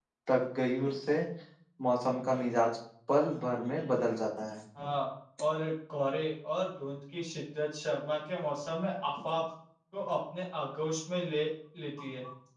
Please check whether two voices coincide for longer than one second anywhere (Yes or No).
No